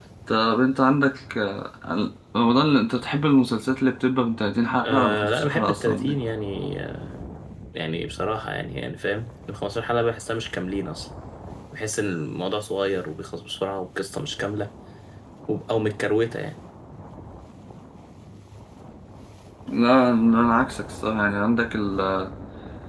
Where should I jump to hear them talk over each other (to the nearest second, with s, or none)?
5 s